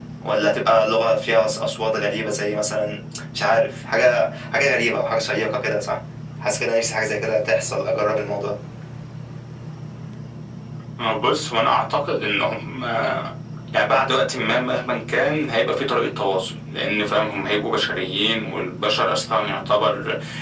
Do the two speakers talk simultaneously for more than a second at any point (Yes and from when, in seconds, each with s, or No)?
No